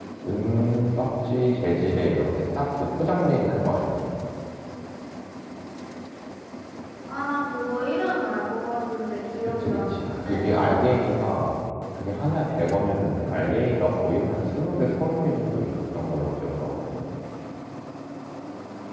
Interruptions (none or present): present